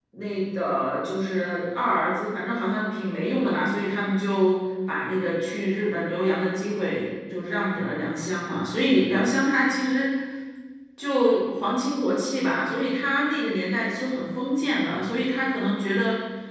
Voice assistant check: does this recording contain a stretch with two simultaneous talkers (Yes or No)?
No